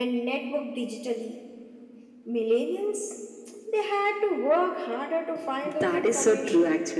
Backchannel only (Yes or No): No